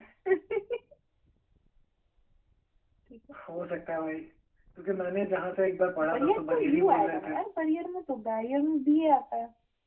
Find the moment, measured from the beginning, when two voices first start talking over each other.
6.0 s

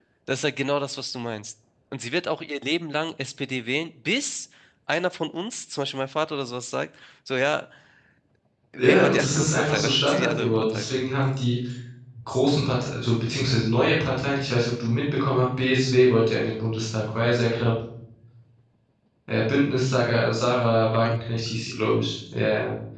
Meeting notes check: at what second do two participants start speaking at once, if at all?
8.8 s

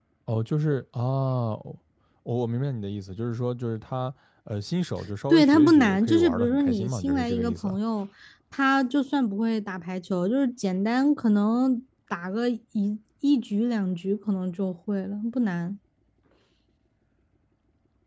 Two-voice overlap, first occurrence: 5.3 s

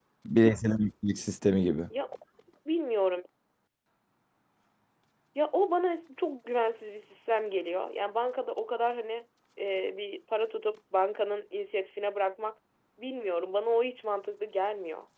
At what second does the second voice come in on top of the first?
none

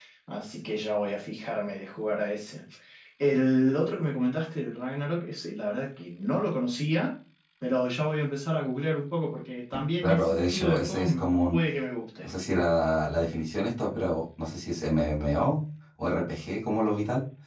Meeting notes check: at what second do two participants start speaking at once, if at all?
10.0 s

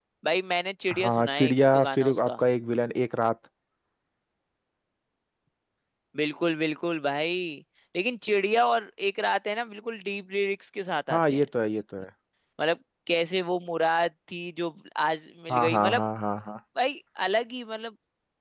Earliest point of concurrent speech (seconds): 0.9 s

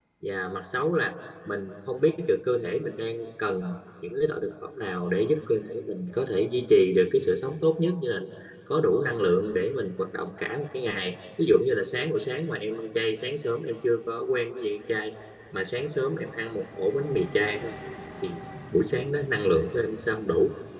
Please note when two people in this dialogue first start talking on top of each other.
none

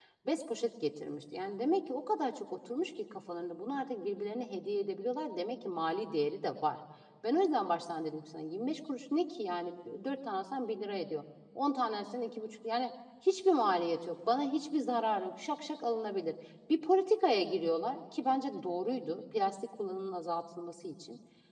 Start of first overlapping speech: none

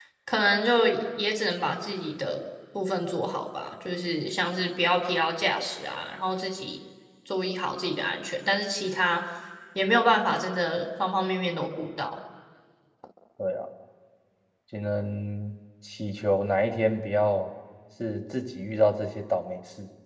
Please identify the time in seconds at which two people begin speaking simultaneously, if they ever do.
none

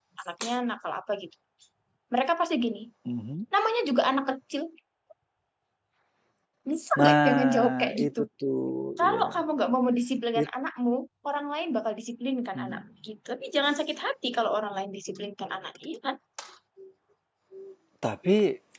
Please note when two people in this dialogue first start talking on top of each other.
7.0 s

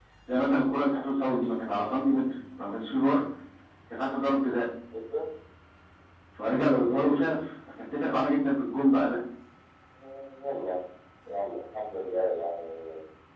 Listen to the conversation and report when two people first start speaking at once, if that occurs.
none

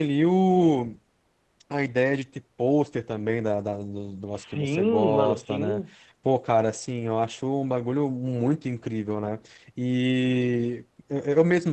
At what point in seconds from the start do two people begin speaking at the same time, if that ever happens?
4.3 s

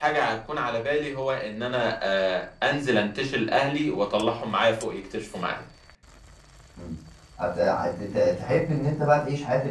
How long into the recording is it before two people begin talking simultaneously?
none

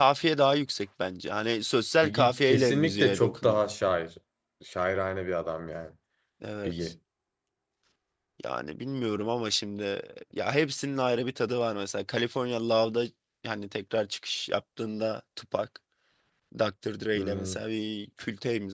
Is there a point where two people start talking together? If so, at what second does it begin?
2.0 s

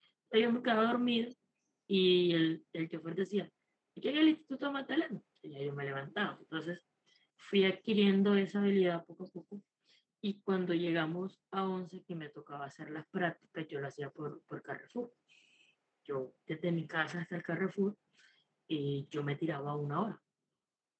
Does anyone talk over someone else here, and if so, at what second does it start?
none

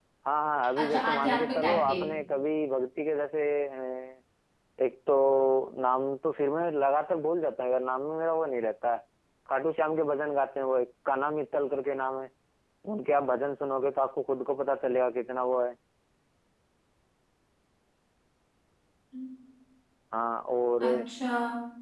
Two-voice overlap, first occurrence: 0.8 s

